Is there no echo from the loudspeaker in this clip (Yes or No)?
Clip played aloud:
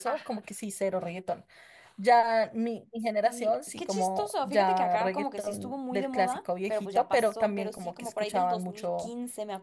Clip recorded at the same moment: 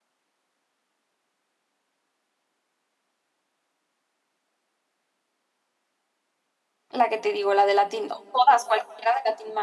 Yes